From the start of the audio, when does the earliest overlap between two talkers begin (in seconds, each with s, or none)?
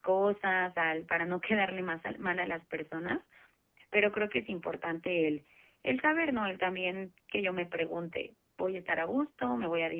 none